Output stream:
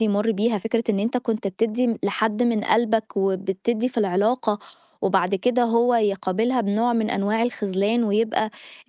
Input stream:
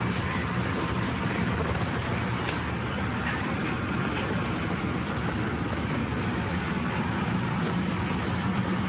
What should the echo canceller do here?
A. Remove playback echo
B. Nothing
B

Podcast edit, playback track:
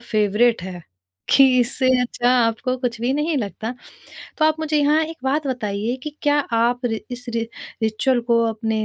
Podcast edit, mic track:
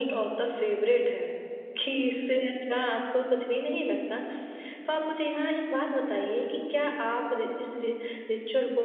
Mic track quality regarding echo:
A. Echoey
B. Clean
A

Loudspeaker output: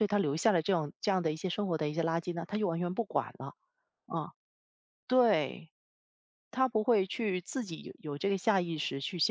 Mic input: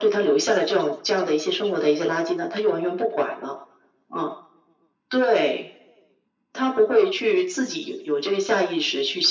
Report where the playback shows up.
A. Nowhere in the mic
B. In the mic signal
B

